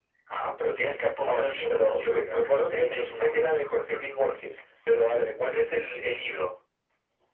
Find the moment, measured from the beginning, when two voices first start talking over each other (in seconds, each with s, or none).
1.2 s